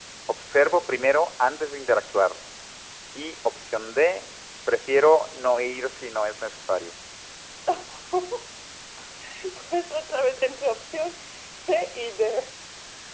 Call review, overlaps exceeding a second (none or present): none